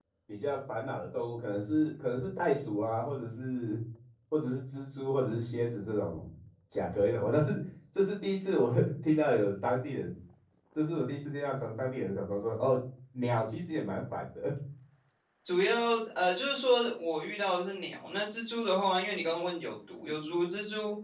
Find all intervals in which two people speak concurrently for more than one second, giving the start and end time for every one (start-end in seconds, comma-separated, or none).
none